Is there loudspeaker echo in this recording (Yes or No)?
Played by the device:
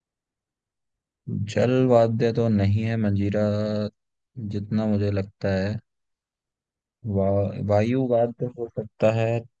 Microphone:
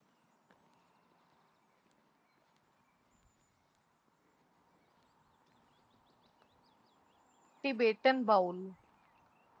No